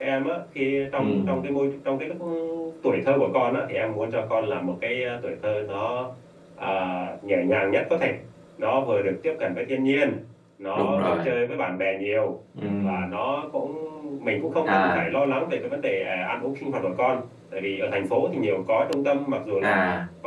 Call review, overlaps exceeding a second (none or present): none